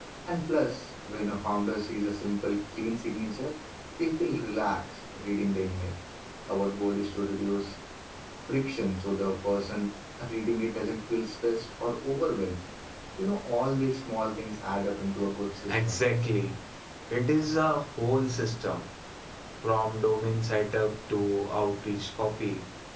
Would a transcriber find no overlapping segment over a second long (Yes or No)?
Yes